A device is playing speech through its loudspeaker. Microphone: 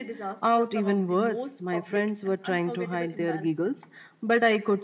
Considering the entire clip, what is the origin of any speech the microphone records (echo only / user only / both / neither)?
echo only